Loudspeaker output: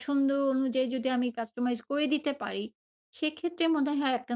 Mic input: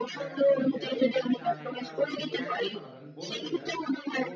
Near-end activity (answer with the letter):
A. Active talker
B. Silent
A